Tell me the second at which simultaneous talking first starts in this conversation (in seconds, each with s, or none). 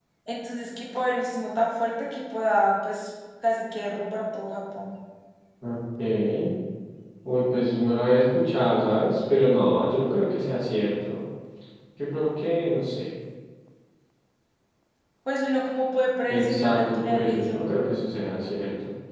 16.3 s